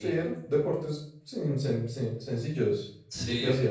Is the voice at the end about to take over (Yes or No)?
Yes